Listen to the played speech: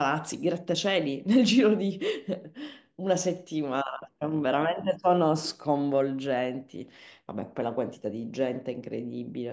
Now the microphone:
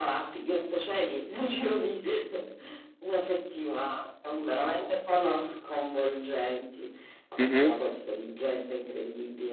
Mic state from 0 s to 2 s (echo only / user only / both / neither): echo only